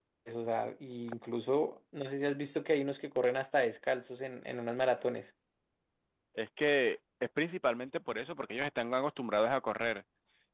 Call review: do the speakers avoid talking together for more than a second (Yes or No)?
Yes